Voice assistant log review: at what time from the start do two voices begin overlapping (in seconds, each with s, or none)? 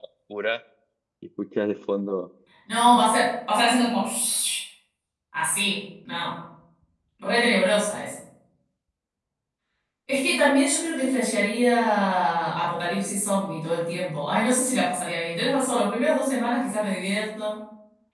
none